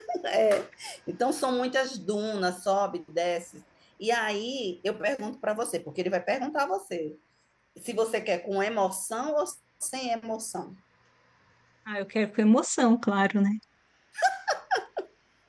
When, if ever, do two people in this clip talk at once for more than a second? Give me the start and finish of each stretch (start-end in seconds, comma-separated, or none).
none